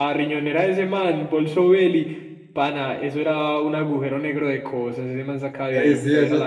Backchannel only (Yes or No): No